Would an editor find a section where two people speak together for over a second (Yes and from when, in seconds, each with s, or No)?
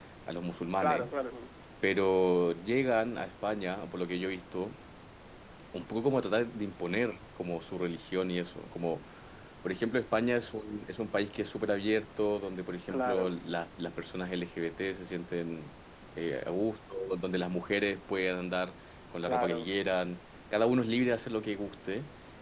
No